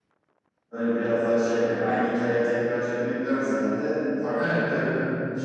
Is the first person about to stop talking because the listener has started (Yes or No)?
No